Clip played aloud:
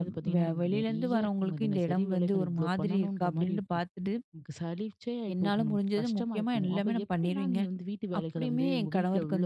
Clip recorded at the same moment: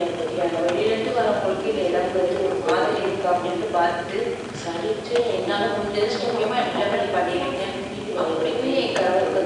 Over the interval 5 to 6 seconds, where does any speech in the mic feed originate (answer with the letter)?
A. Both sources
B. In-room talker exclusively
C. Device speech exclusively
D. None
C